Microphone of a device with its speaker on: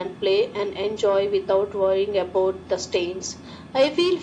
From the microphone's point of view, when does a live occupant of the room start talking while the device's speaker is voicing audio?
none

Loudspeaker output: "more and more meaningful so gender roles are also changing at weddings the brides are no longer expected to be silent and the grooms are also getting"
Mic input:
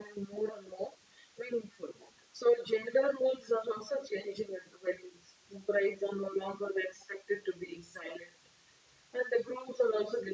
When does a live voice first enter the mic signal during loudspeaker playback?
none

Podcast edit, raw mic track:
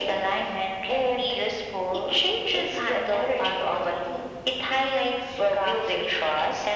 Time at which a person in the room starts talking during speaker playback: none

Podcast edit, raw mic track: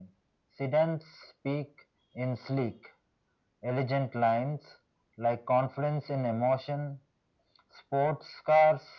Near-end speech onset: none

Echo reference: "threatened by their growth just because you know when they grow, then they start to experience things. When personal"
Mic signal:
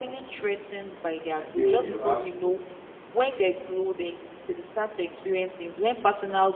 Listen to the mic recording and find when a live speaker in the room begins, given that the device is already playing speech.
1.4 s

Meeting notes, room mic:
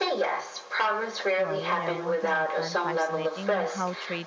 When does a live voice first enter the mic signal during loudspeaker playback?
1.4 s

